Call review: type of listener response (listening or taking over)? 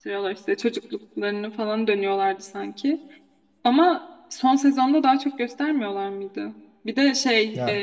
listening